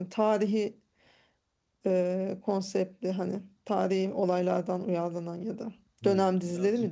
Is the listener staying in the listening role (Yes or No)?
No